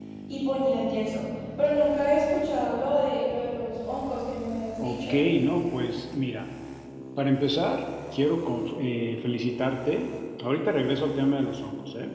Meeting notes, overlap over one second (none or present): none